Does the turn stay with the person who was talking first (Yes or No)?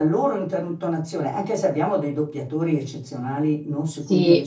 Yes